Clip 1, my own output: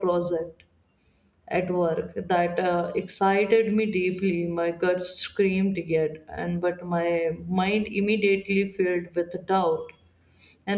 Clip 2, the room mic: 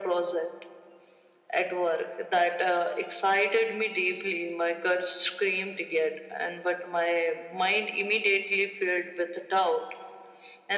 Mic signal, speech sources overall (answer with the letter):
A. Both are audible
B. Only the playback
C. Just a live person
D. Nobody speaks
B